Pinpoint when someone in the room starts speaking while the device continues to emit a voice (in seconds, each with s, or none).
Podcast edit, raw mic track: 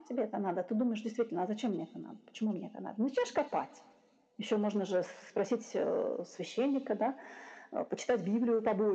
none